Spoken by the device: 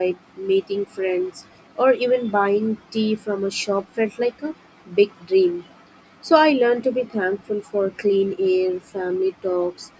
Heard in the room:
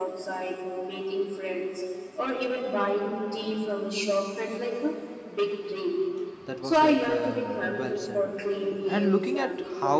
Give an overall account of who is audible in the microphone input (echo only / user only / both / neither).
both